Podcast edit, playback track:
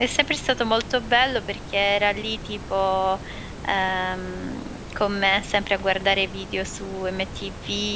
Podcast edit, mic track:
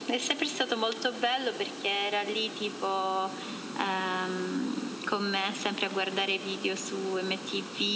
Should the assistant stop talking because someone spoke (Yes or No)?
No